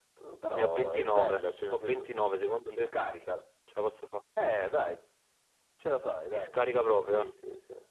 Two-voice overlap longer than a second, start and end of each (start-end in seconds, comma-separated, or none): 0.6-2.0